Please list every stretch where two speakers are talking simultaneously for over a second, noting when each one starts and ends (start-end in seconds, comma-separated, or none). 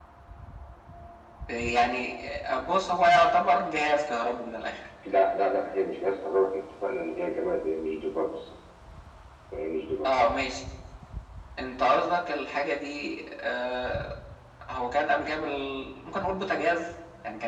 none